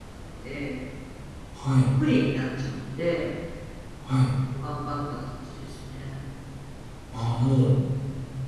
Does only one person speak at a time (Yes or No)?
Yes